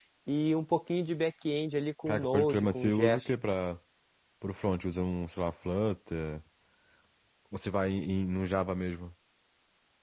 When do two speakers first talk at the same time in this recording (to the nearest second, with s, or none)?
2 s